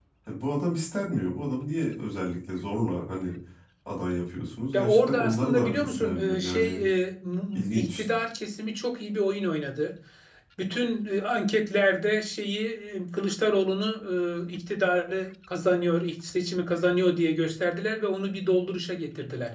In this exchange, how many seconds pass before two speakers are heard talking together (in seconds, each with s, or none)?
4.7 s